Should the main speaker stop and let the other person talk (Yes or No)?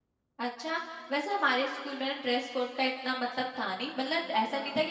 No